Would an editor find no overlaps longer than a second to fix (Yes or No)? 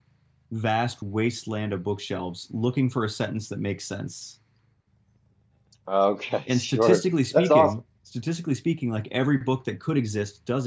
No